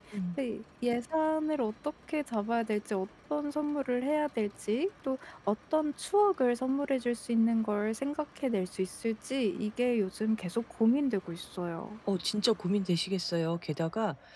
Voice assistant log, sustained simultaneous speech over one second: none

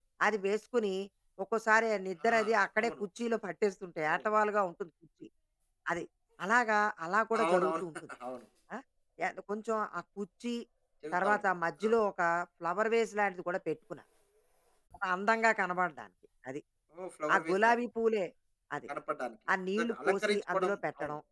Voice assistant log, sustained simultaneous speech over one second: present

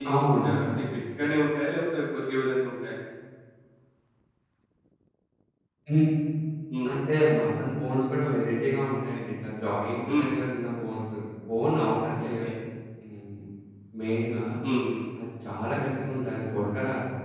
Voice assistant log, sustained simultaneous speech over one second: none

